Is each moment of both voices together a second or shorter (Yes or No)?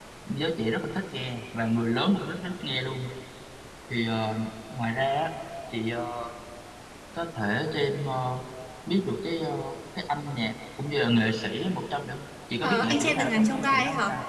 No